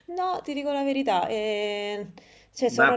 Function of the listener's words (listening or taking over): taking over